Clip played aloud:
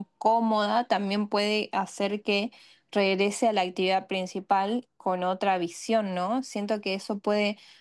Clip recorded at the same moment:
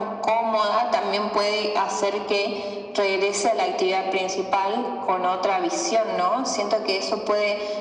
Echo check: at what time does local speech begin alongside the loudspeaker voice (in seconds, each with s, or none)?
none